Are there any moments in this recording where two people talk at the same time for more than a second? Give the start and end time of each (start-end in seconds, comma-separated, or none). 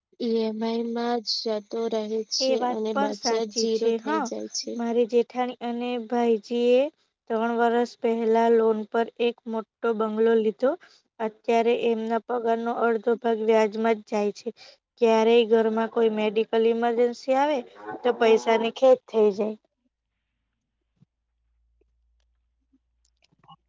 2.5-4.2